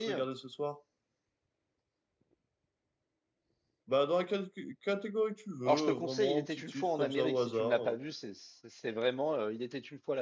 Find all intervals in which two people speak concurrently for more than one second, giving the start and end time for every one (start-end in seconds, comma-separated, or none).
5.7-8.0